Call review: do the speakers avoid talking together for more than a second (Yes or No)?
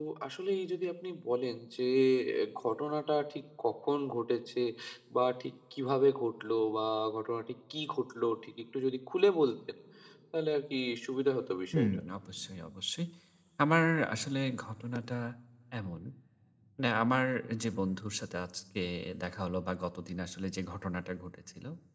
Yes